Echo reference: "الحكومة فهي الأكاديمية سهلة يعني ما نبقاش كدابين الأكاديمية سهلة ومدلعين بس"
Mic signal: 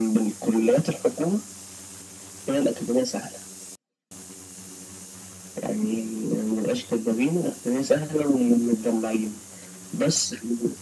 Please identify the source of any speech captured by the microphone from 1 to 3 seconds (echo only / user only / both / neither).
echo only